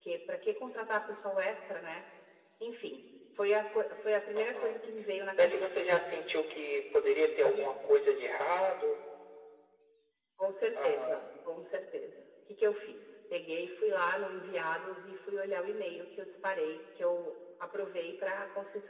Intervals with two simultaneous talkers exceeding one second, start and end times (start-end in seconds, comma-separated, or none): none